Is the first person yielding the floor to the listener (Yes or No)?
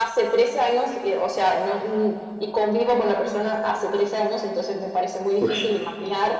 No